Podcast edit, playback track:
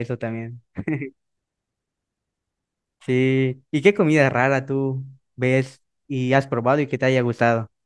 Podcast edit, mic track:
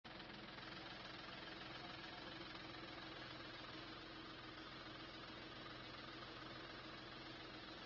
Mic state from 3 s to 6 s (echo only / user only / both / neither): neither